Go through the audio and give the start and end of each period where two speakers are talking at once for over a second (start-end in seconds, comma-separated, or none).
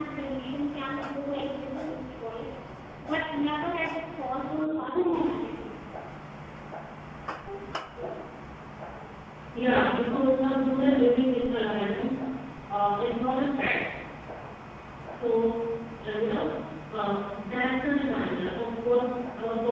none